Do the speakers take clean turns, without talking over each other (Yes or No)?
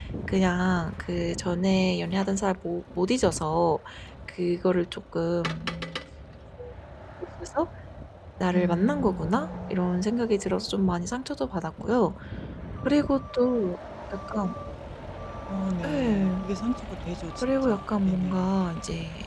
No